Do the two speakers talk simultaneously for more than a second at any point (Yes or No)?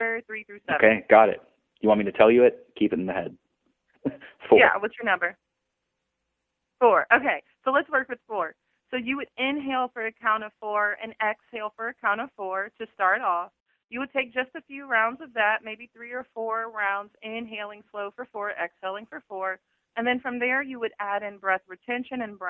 No